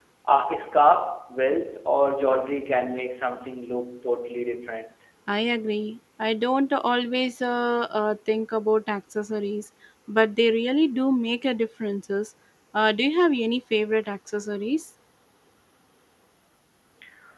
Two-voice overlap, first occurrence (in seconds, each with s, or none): none